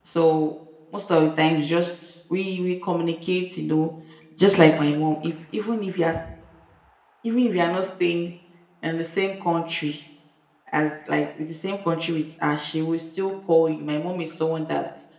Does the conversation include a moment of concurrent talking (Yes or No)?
No